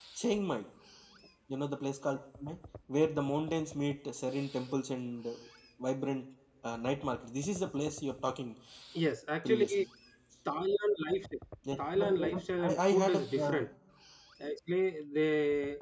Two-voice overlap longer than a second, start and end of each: 11.8-13.6

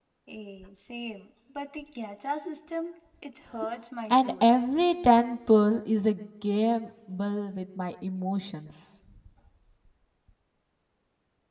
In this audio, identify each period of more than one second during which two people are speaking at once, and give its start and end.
none

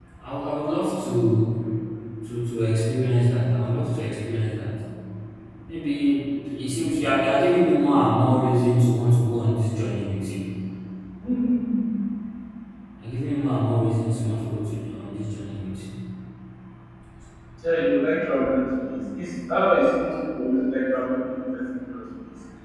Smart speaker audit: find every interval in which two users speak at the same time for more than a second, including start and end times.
none

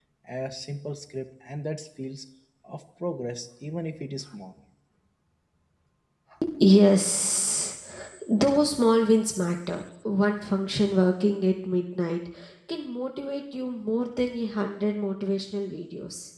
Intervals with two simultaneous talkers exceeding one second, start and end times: none

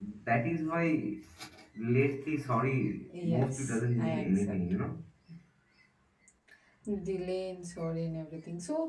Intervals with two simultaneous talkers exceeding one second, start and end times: 3.2-4.6

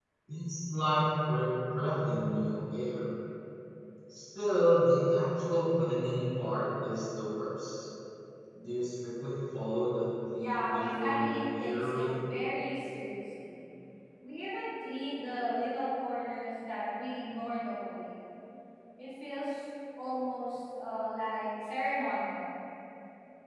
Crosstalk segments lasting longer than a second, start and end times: 10.3-12.1

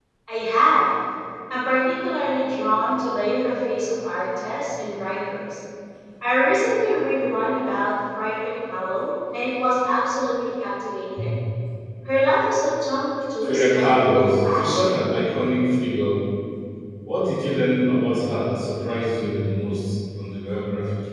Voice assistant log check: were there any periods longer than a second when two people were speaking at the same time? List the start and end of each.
13.4-15.0

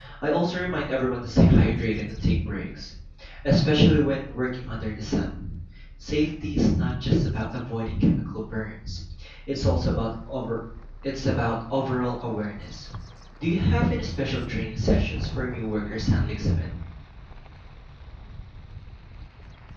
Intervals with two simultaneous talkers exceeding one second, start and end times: none

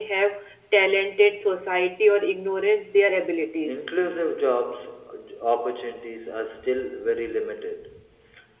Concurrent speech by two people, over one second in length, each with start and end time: none

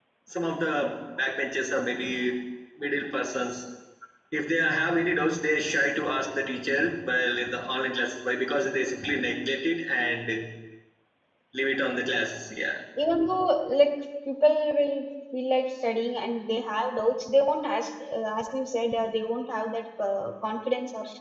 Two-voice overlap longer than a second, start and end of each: none

